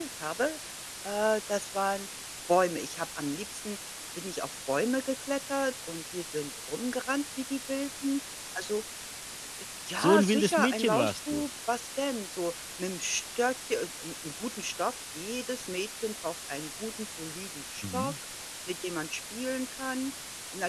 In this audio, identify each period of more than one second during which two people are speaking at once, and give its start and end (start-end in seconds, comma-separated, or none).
10.0-11.5